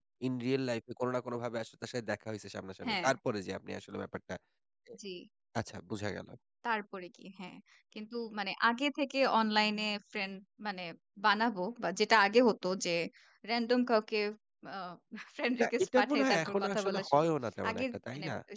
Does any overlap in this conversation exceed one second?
Yes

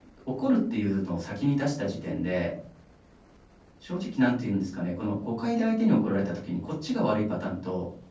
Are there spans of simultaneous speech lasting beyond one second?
No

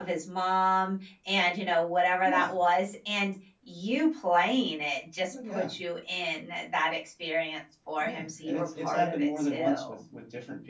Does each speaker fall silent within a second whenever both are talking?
No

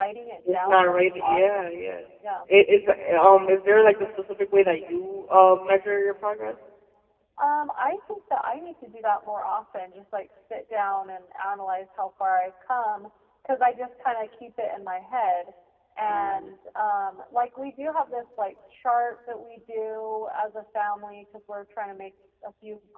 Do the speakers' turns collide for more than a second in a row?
Yes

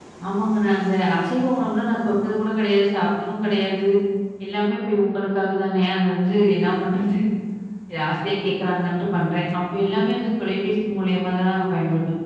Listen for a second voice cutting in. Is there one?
No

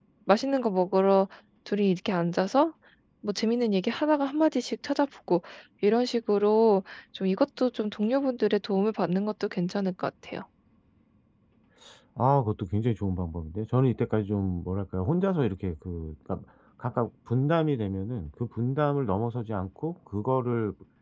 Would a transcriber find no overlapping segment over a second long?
Yes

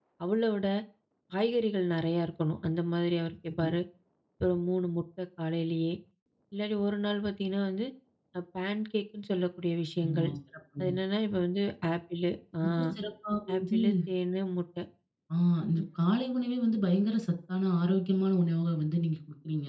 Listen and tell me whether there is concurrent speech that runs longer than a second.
No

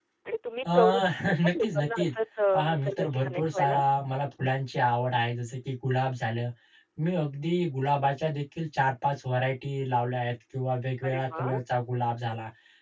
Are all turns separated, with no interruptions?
No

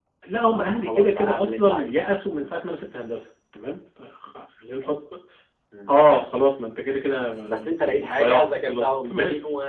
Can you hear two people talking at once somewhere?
Yes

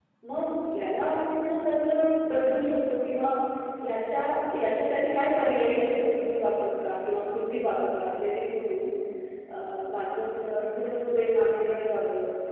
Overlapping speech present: No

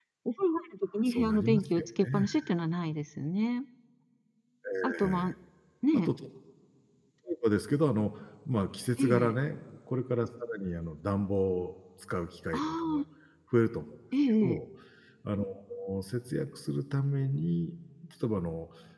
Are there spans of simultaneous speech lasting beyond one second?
Yes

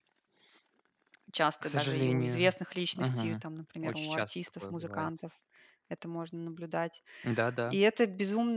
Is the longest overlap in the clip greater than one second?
Yes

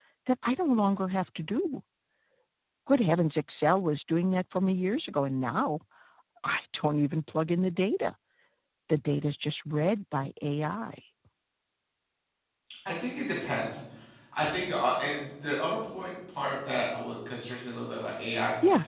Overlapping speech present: No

